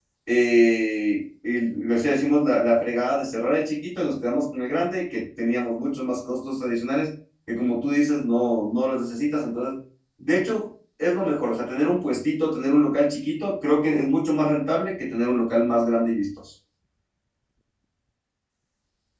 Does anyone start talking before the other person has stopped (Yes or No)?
No